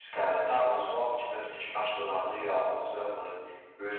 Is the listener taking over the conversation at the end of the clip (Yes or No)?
Yes